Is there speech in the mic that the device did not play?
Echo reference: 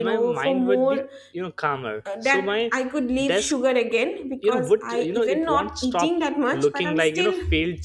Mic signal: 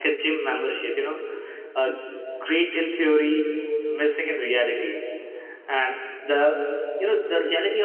Yes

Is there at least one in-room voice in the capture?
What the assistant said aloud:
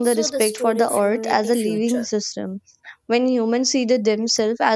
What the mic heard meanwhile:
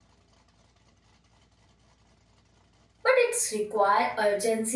Yes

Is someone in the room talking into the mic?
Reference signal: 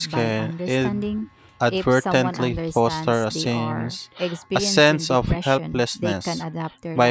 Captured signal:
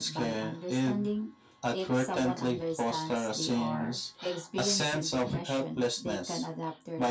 No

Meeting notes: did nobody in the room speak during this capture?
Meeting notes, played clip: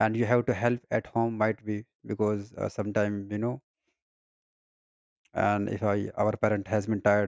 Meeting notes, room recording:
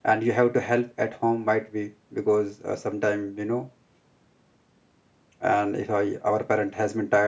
Yes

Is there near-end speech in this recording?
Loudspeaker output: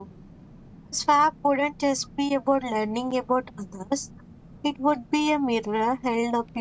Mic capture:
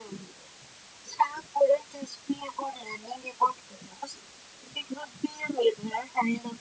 No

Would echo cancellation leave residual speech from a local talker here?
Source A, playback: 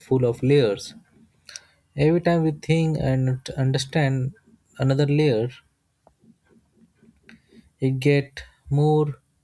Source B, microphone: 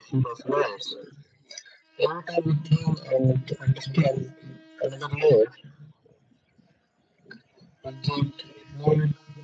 No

